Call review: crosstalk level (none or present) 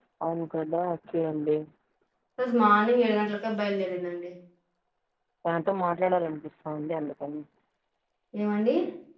none